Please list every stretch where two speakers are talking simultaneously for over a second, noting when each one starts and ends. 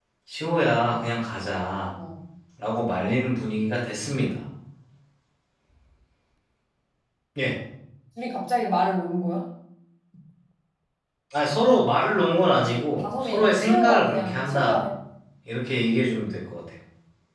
12.6-14.8

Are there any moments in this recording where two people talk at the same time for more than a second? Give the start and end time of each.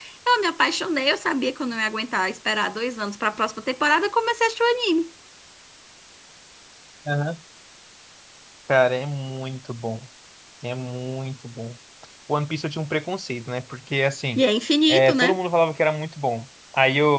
none

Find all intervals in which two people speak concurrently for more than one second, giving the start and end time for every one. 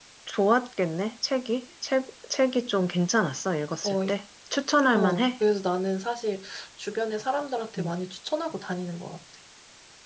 none

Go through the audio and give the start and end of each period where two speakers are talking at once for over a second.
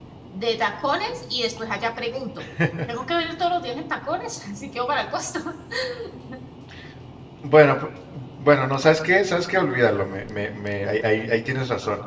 none

